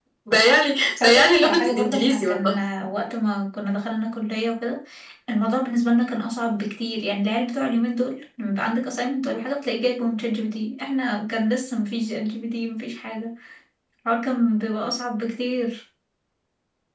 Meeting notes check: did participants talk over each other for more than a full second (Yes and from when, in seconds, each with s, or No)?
Yes, from 1.0 s